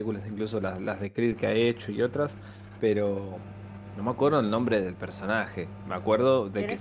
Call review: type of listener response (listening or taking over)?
taking over